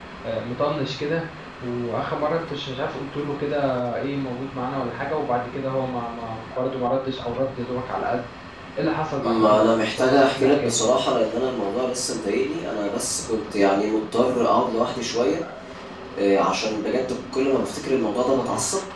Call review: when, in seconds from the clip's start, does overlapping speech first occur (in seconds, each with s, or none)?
9.2 s